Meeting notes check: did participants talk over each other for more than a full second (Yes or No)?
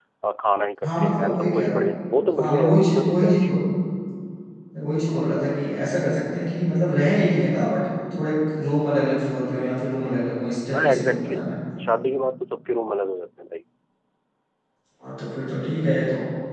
Yes